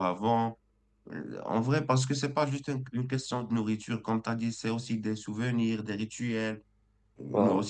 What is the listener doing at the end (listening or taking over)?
listening